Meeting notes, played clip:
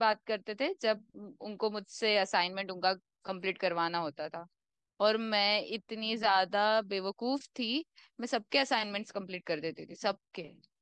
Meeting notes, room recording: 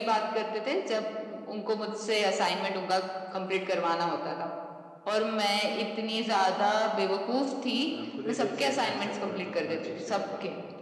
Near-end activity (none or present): present